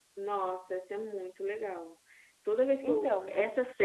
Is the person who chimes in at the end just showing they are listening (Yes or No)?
Yes